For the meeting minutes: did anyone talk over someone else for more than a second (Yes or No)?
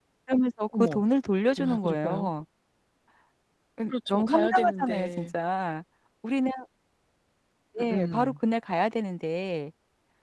Yes